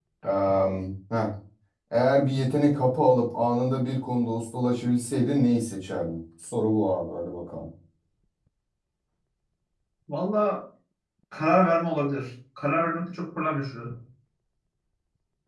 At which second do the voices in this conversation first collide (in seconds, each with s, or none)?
none